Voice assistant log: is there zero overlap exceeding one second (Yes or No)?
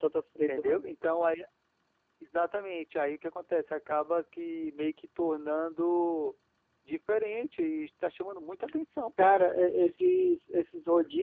Yes